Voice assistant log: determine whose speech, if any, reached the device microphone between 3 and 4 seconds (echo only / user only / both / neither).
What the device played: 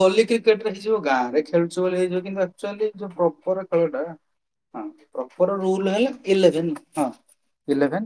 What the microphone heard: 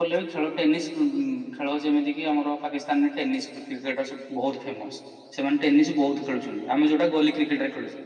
user only